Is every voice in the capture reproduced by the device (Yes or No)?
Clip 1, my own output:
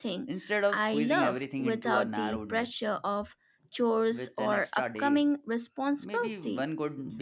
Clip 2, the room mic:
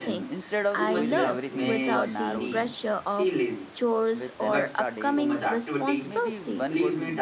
No